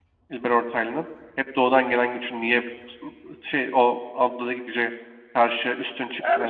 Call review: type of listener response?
taking over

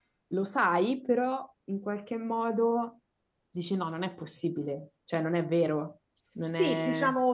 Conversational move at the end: taking over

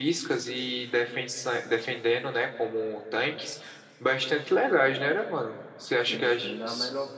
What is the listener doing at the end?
taking over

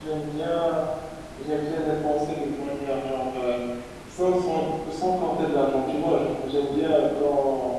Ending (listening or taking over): listening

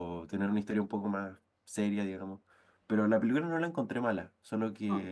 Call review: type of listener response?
listening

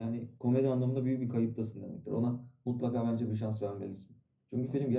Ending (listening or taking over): listening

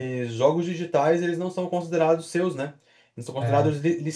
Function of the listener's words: listening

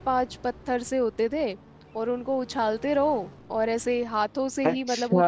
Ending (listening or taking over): taking over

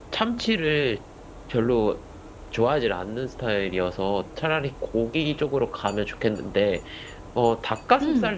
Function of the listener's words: listening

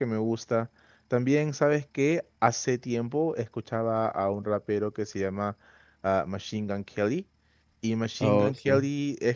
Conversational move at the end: listening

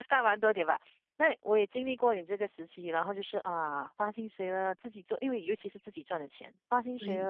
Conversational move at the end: listening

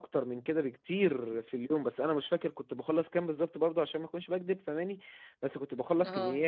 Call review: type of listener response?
listening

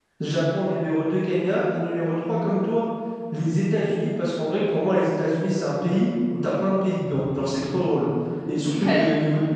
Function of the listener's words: listening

